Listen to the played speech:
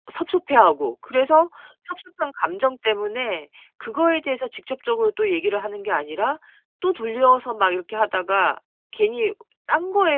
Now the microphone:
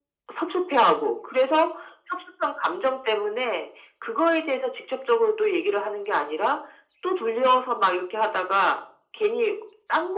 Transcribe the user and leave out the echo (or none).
none